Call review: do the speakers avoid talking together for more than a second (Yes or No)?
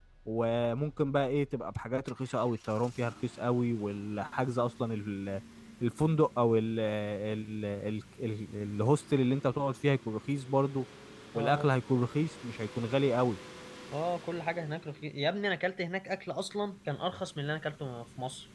Yes